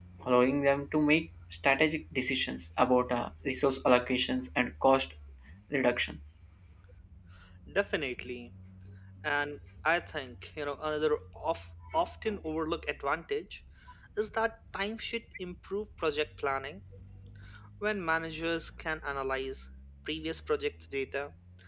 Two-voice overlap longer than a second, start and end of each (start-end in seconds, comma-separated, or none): none